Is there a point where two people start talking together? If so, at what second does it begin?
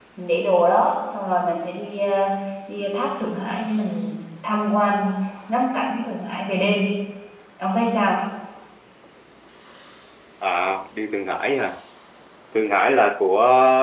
none

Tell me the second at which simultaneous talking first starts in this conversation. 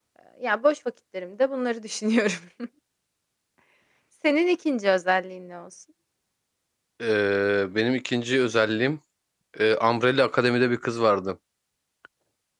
none

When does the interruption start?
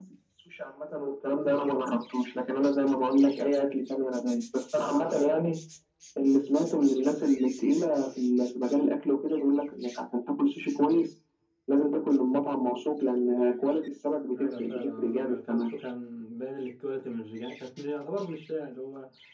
14.3 s

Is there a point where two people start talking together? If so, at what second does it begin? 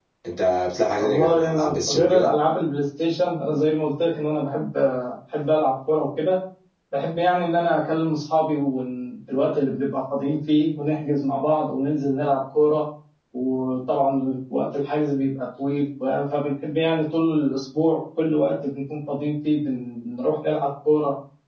1.0 s

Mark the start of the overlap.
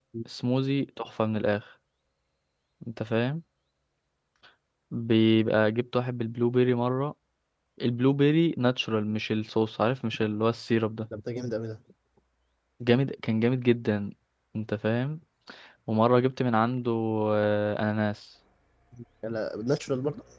none

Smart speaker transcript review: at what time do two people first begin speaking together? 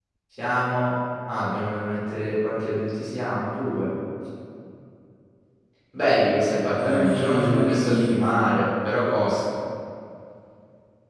6.7 s

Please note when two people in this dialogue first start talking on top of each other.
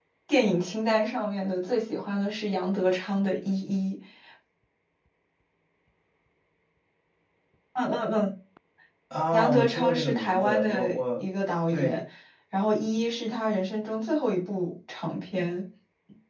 9.3 s

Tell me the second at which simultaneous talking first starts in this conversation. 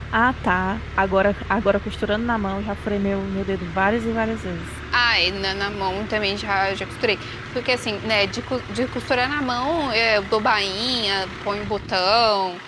none

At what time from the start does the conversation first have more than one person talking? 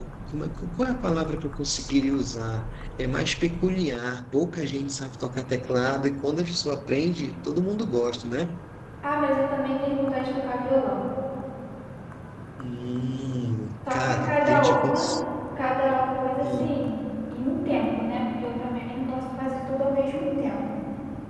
13.9 s

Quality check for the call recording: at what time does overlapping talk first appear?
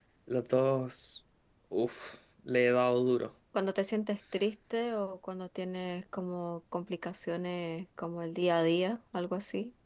none

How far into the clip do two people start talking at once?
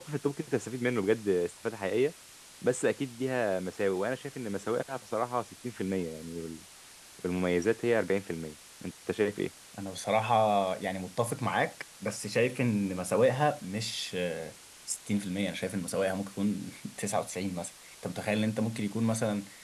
none

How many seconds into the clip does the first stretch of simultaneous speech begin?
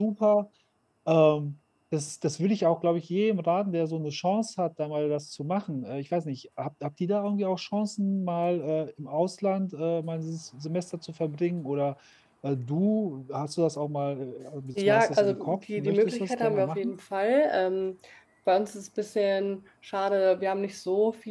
14.8 s

